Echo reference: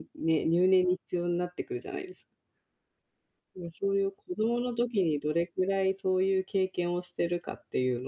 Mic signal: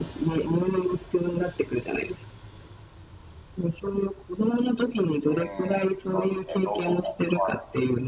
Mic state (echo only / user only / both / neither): both